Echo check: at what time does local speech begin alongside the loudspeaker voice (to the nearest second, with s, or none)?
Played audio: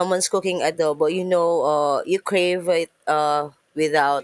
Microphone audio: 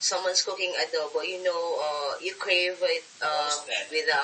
3 s